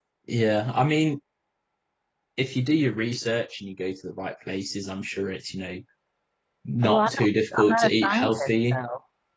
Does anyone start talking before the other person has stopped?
Yes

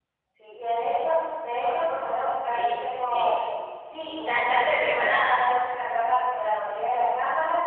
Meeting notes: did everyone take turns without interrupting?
No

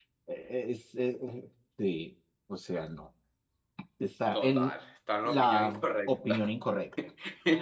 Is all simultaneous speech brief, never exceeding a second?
No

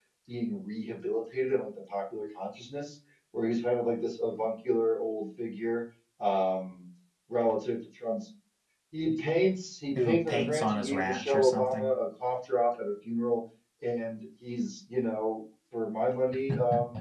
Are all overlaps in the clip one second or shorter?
No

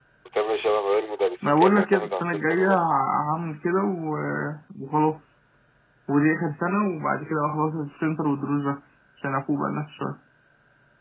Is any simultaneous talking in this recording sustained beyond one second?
Yes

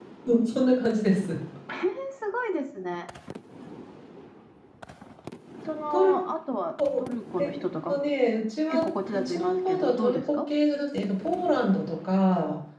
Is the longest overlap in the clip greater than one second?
Yes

